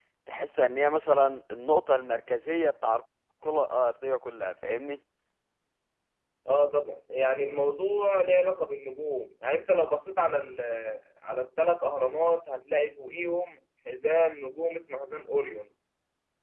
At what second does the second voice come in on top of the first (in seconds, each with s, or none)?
none